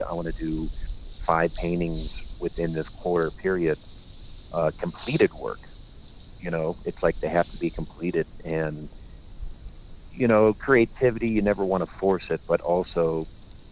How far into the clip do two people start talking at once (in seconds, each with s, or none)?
none